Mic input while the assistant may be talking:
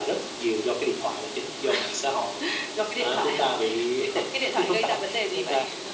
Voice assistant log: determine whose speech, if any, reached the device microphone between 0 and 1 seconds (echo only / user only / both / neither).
echo only